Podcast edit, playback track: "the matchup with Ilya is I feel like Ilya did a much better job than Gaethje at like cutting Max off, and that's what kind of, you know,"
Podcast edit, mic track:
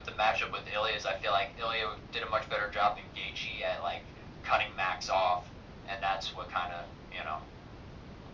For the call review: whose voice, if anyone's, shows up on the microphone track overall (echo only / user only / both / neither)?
echo only